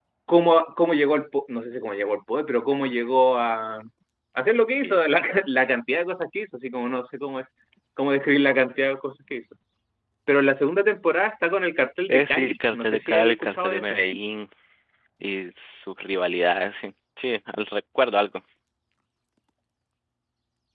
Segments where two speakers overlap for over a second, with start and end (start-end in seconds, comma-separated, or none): 12.1-14.0